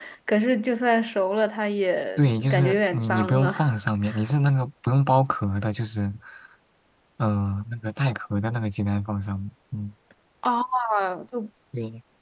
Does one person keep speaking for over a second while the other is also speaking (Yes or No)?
Yes